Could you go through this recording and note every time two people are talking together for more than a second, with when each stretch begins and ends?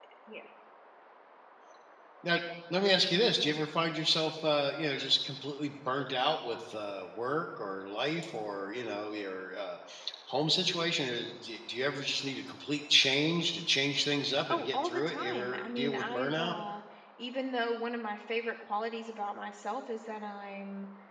14.5-16.6

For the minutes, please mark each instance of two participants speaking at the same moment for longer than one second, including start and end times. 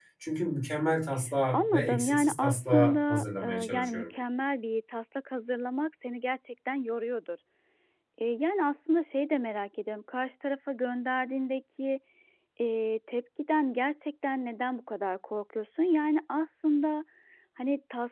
1.5-4.1

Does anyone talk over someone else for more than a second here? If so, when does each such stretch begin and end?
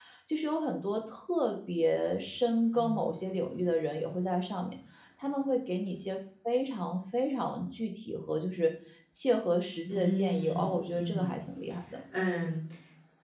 9.9-11.4

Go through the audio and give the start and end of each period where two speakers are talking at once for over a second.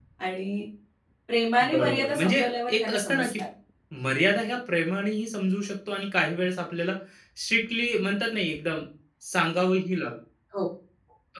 1.7-3.3

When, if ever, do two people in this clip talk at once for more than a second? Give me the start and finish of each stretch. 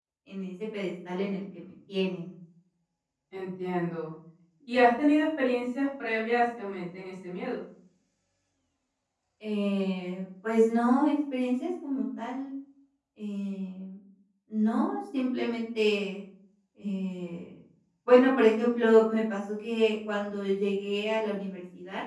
none

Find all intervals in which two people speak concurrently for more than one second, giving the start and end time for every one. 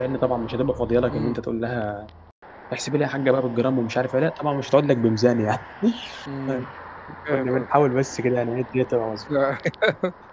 none

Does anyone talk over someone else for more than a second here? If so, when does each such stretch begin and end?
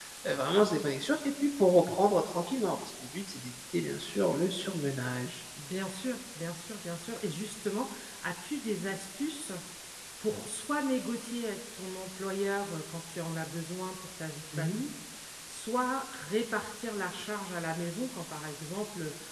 none

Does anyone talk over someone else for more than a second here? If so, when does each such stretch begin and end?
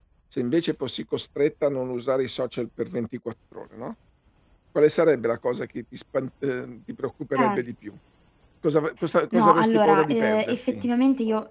9.3-10.9

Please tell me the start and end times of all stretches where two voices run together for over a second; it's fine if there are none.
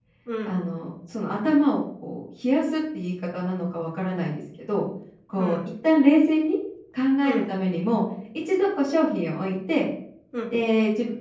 none

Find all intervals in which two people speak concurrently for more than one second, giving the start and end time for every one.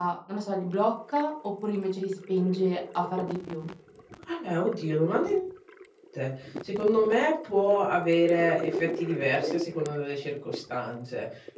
none

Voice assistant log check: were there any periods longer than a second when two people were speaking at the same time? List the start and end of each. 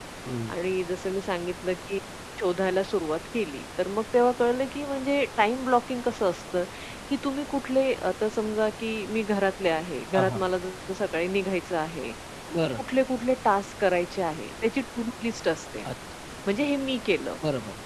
none

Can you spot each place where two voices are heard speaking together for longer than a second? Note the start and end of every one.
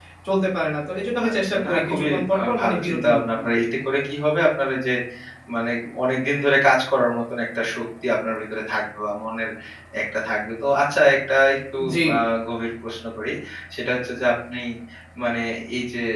1.3-3.5

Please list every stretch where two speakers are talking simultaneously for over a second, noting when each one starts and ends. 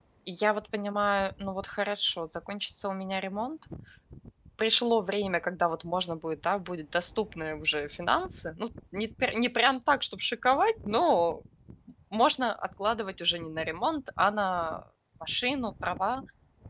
none

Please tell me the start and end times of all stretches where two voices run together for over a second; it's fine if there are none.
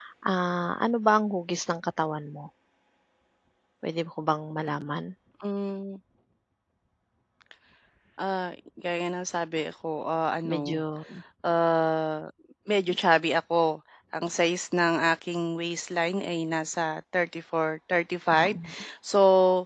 none

